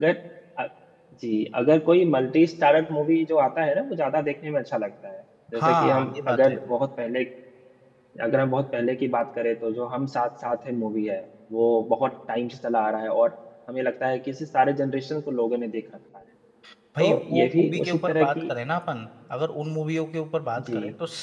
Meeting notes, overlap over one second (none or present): present